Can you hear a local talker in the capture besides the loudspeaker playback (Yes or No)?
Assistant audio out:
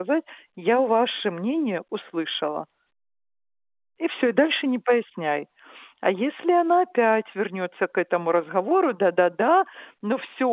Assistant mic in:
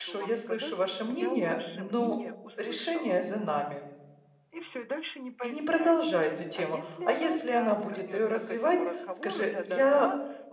Yes